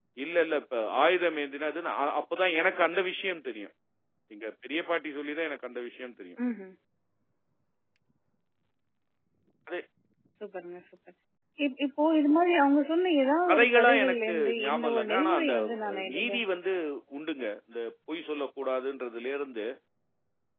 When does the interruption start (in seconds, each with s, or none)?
13.5 s